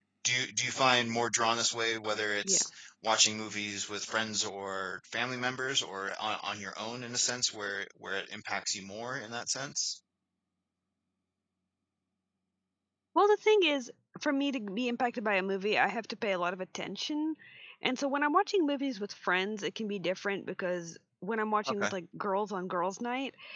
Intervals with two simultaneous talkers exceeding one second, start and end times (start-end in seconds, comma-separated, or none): none